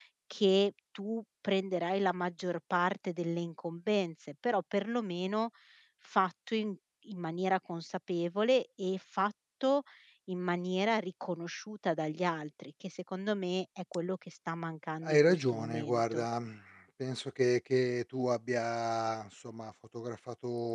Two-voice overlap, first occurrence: 15 s

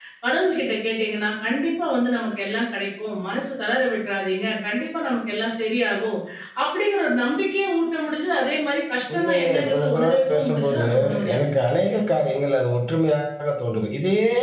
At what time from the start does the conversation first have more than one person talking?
9 s

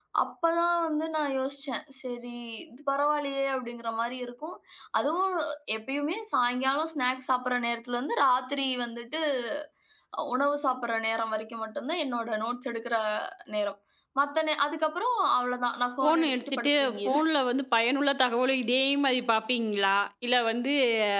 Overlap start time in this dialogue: 16 s

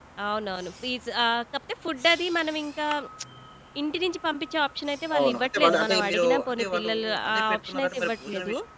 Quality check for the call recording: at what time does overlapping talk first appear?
5 s

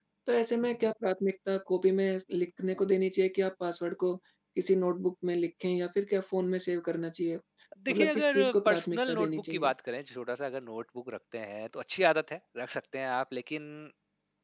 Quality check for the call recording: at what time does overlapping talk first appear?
8 s

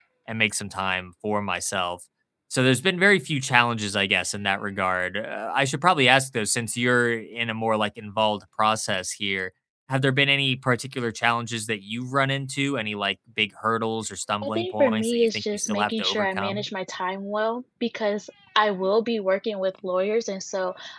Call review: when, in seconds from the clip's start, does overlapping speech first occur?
14 s

